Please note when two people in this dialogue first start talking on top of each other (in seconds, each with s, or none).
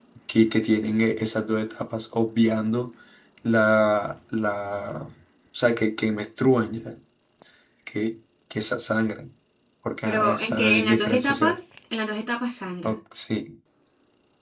10.0 s